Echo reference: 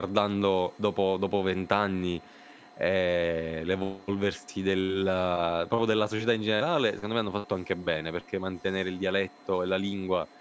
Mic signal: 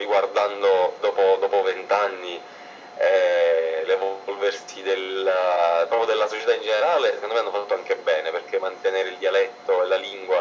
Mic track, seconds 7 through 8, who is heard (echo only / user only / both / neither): echo only